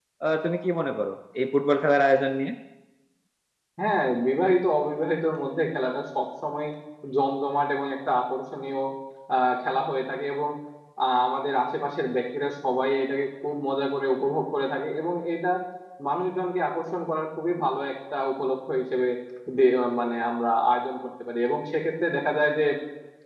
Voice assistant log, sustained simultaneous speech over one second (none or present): none